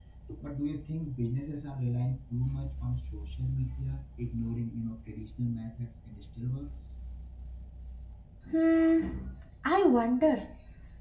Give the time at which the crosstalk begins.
none

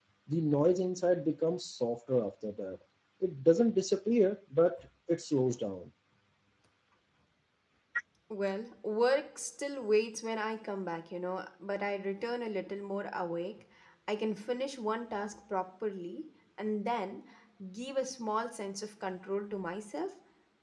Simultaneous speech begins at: none

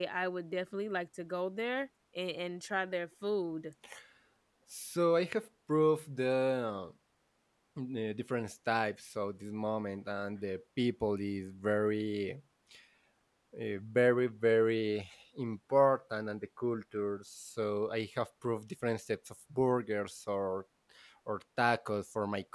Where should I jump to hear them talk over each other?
none

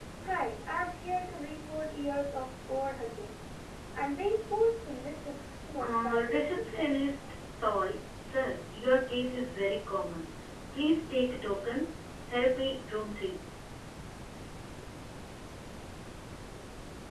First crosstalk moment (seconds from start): 6 s

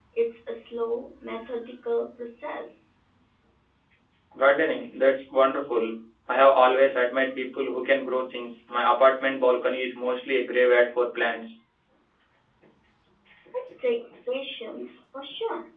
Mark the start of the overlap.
none

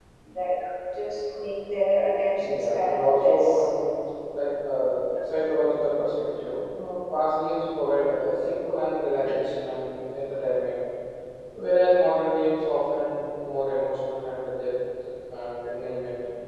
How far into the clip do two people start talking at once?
2 s

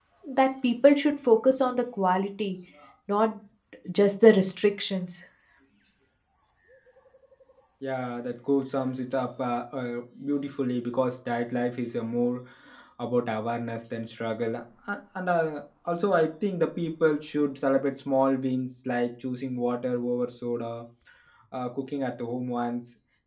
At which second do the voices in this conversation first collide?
none

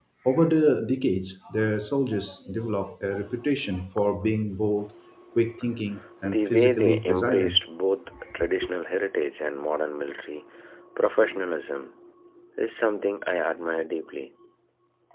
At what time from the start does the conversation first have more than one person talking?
6 s

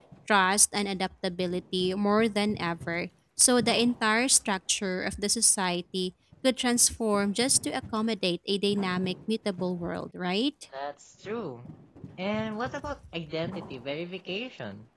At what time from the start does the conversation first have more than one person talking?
none

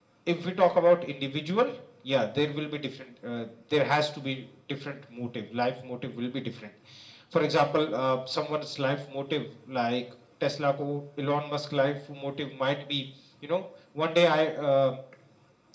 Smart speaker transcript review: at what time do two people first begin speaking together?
none

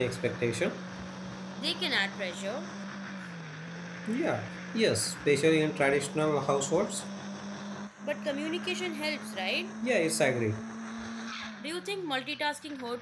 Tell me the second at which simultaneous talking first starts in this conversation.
none

